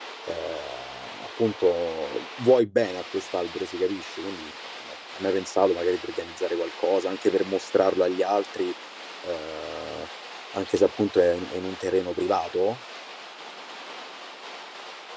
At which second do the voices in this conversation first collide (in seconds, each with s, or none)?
none